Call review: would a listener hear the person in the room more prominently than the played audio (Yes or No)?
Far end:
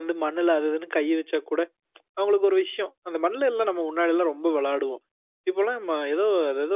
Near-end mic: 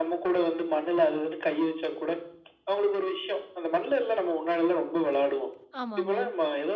No